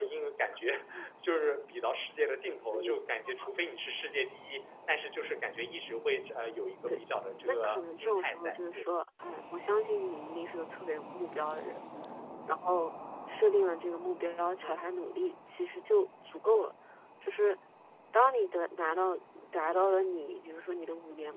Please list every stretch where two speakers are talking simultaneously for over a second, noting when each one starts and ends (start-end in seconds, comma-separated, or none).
7.4-8.9